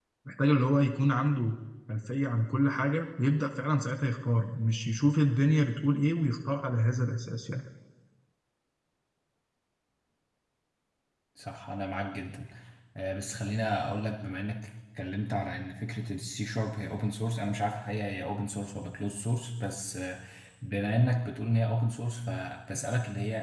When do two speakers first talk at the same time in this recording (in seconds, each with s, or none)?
none